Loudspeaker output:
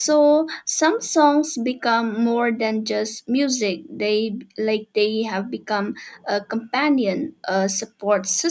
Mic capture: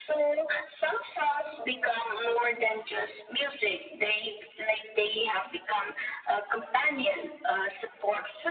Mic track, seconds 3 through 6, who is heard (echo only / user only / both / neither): echo only